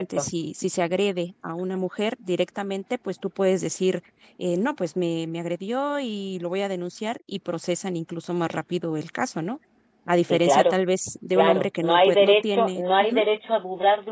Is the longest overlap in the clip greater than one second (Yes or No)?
Yes